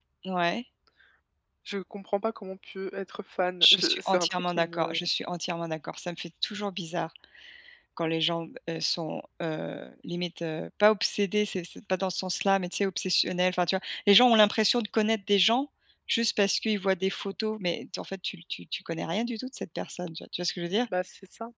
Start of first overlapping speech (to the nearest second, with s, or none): 4 s